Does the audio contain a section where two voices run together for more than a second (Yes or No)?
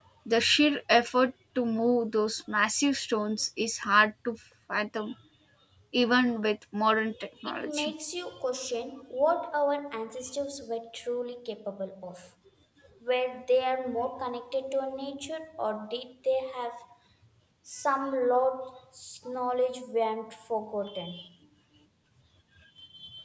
No